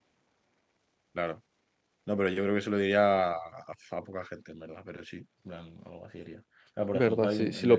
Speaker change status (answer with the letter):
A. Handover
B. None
A